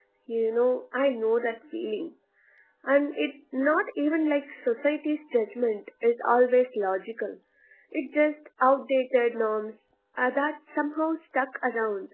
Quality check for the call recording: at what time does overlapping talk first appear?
none

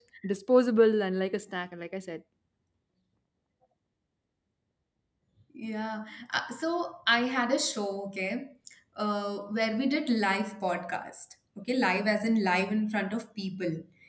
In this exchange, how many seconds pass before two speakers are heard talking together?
none

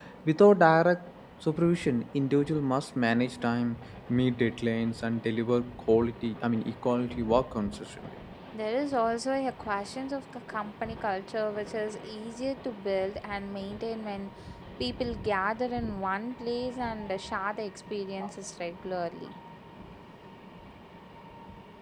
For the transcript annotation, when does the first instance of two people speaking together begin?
none

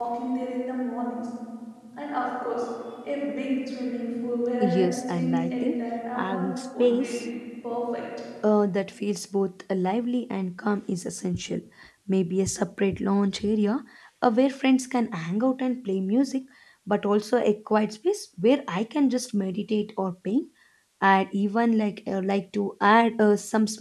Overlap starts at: 5 s

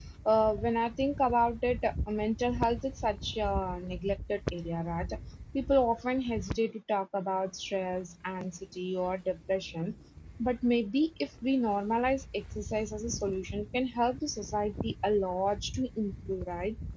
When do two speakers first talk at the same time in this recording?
none

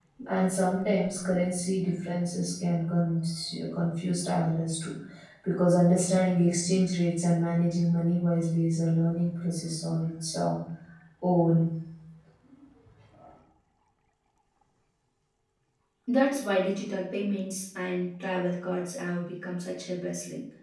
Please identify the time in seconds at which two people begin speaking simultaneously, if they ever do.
none

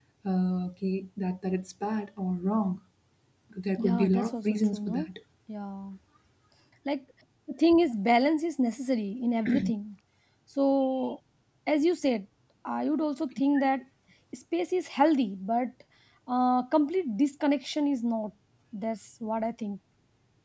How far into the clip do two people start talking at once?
4 s

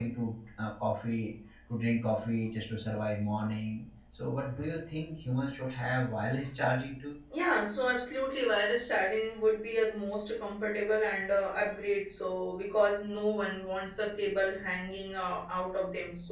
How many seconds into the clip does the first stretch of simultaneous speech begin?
none

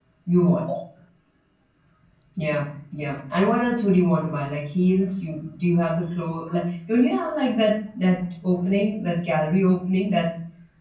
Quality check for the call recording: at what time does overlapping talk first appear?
none

